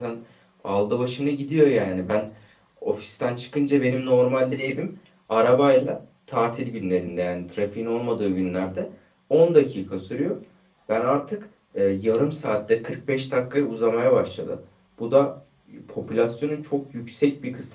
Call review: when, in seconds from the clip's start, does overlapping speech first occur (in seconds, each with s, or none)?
none